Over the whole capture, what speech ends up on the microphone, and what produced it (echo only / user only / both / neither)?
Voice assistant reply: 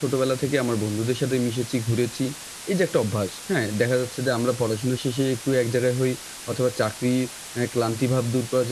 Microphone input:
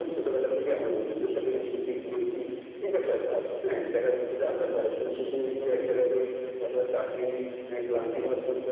echo only